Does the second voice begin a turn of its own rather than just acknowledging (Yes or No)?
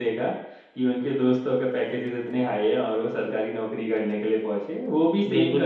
No